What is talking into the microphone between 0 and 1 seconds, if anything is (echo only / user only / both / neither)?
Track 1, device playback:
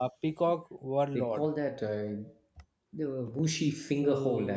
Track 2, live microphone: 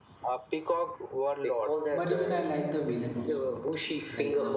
echo only